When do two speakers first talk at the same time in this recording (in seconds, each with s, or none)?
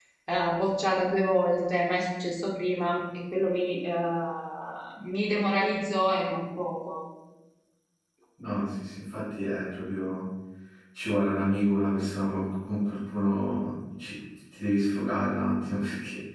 none